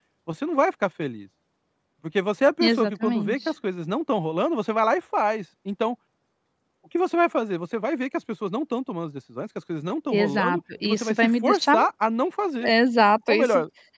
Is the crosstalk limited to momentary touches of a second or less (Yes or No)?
No